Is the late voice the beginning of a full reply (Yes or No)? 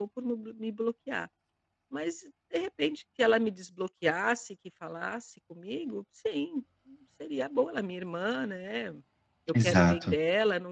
No